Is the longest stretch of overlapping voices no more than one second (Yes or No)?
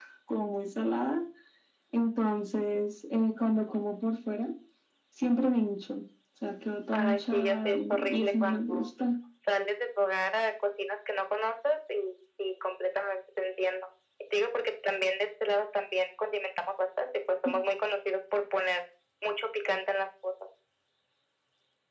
No